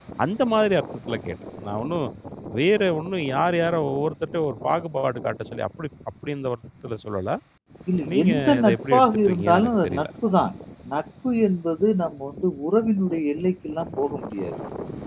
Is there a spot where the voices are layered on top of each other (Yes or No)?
Yes